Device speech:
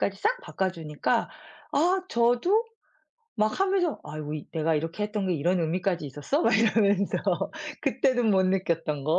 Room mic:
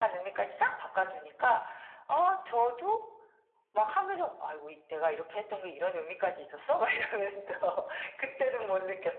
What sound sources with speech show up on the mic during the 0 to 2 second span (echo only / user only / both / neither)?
echo only